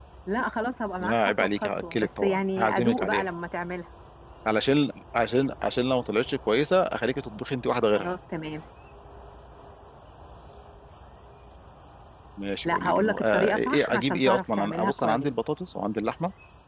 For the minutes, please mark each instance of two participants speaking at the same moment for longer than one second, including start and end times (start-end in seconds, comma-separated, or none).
1.0-3.2, 12.6-15.3